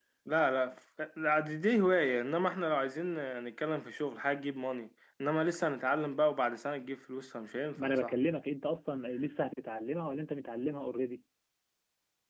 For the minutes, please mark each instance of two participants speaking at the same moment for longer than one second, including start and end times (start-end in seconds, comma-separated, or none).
none